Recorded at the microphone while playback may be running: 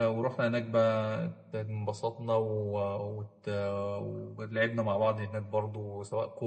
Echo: present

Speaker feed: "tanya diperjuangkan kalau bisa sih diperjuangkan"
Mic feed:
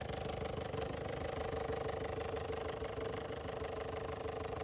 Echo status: none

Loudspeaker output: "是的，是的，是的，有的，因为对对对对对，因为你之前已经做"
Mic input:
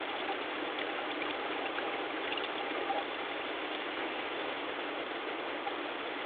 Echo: none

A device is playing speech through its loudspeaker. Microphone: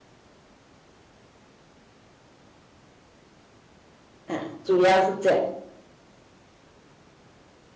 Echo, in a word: none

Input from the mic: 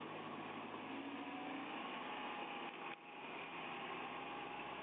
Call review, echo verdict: none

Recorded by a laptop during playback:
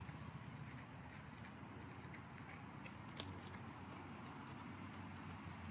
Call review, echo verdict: none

